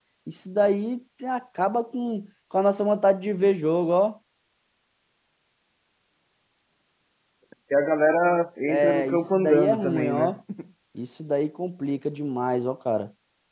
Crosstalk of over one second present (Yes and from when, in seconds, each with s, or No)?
Yes, from 8.7 s